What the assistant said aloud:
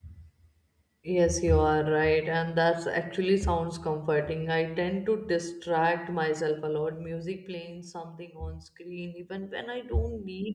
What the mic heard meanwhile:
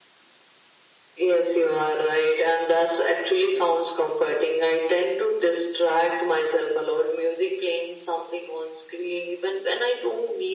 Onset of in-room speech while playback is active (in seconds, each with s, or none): none